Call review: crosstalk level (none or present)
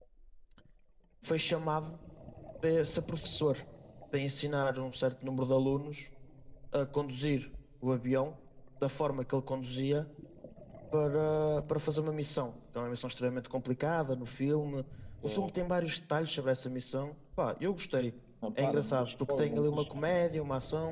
present